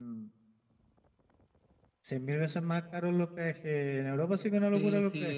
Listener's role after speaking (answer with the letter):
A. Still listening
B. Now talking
B